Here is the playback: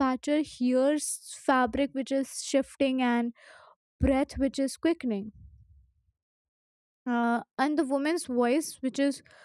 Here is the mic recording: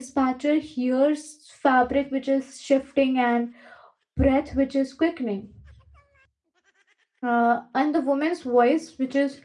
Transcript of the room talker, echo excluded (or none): none